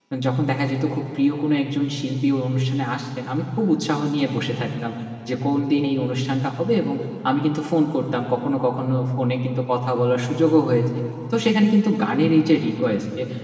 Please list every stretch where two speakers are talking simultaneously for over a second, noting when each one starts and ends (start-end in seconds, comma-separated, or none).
none